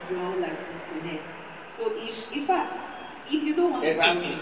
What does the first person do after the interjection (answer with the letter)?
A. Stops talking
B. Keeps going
A